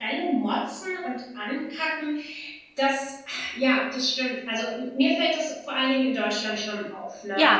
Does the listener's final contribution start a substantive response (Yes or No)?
No